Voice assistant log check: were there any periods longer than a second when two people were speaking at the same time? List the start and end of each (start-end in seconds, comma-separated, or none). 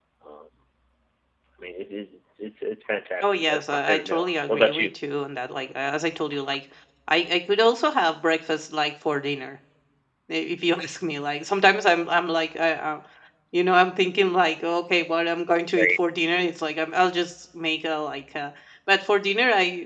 3.2-4.9